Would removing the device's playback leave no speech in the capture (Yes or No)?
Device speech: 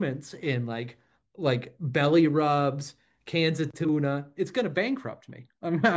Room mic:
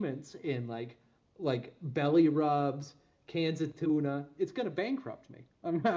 Yes